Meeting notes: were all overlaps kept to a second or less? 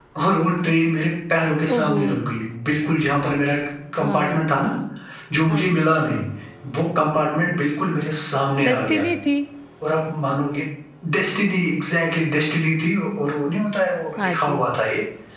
Yes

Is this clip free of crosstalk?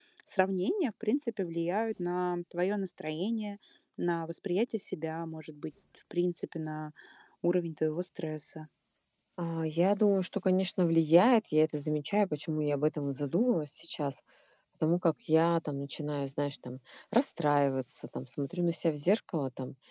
Yes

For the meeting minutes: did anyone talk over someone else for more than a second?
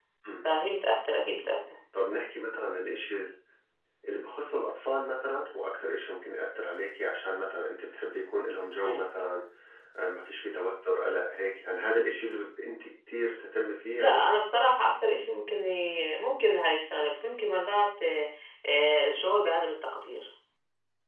No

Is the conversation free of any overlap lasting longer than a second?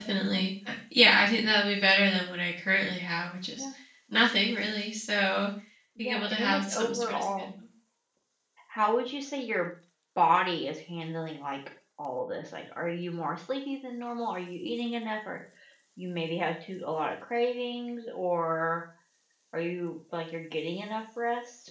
No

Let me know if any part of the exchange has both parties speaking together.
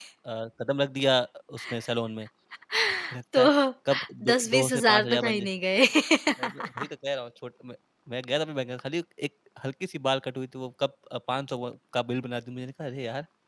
Yes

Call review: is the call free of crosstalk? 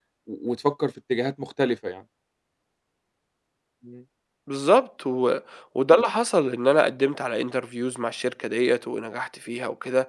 Yes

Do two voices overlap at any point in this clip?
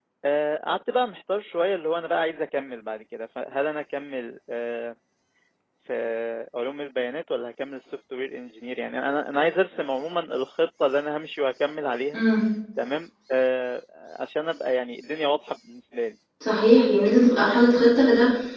No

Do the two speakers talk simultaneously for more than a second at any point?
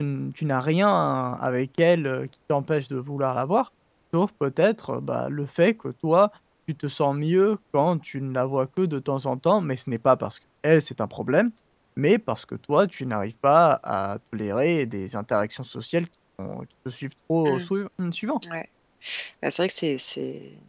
No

